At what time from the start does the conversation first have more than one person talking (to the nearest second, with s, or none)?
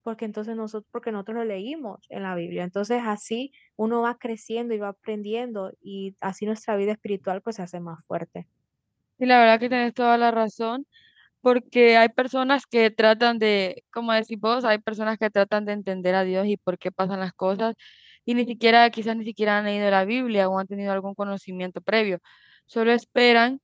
none